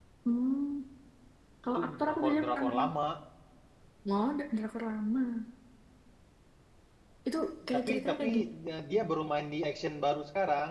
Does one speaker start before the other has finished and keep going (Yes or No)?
Yes